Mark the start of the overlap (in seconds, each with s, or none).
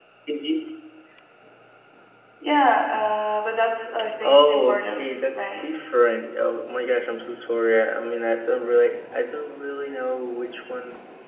4.0 s